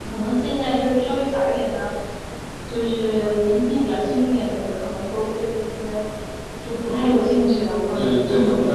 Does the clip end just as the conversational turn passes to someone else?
Yes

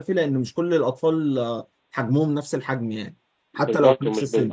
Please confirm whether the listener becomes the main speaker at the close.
Yes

